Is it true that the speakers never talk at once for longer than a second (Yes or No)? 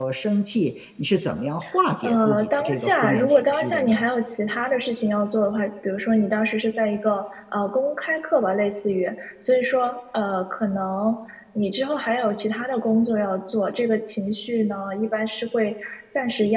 No